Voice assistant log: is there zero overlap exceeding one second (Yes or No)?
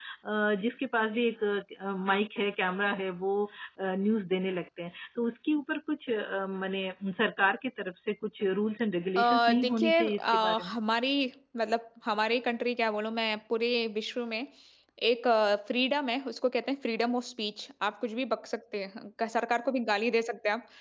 No